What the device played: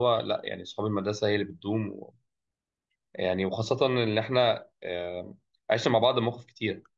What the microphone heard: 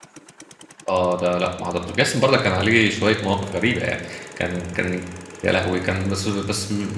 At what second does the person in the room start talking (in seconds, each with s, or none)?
0.9 s